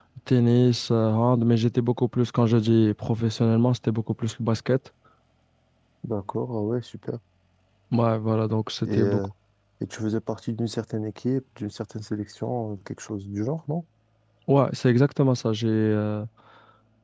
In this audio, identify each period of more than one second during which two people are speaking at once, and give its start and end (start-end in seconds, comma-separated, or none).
none